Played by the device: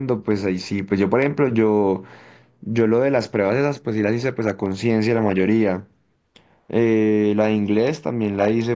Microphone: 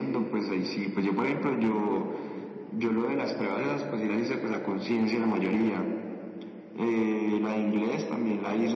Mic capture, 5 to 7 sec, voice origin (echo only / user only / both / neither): echo only